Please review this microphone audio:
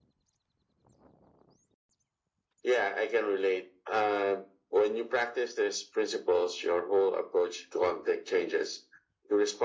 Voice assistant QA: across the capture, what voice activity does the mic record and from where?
echo only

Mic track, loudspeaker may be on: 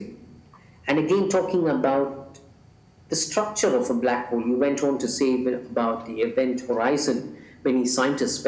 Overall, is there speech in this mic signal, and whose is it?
echo only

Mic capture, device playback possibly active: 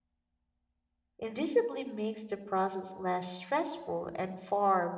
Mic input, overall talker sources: user only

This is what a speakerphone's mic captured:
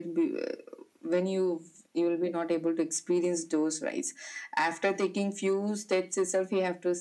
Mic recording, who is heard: echo only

